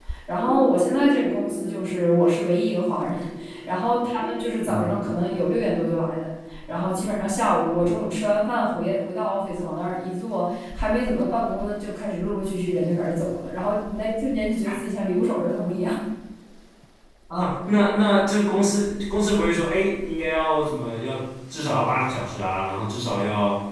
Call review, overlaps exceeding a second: none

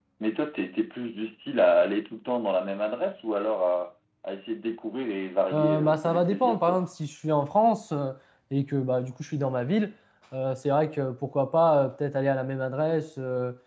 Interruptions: present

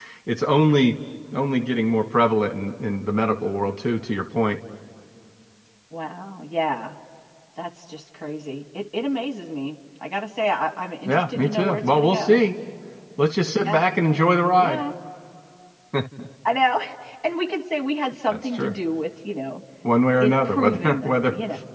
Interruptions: present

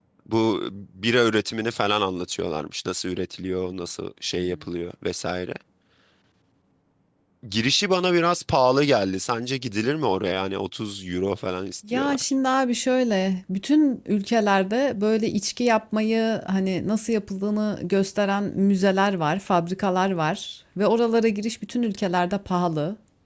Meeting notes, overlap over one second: none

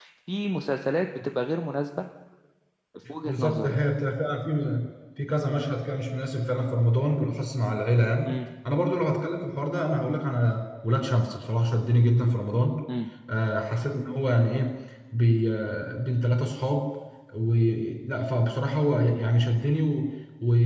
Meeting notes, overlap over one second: none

